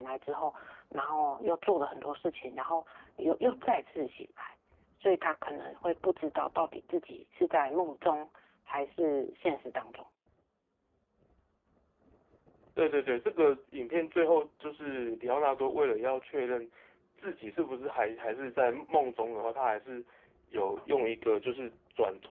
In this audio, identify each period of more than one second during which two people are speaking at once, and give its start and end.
none

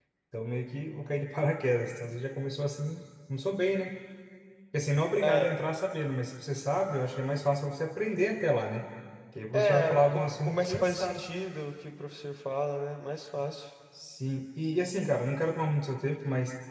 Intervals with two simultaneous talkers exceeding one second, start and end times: 9.5-11.2

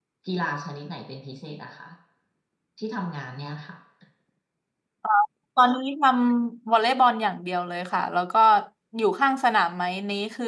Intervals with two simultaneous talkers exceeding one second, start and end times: none

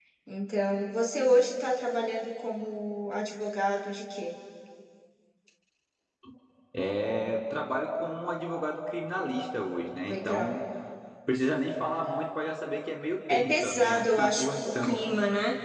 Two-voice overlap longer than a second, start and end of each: 13.3-14.9

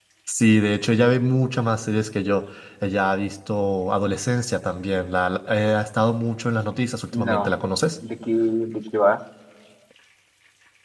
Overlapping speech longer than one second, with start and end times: none

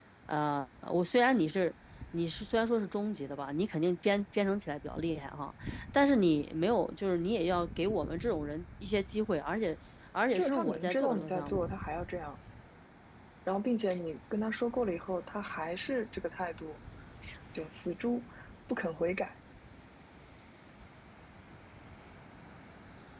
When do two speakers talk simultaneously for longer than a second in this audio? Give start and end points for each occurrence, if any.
10.3-11.7

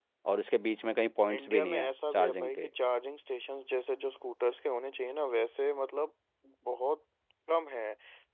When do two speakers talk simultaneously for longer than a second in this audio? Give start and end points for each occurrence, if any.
1.3-2.7

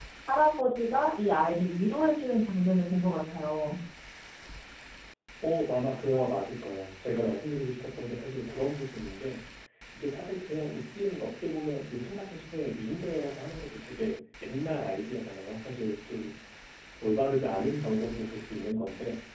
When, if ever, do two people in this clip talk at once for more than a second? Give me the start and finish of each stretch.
none

